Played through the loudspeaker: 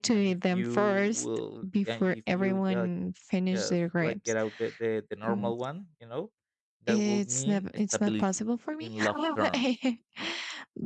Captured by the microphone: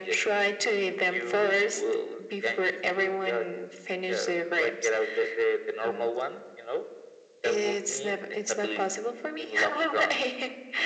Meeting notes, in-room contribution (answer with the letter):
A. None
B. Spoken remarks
A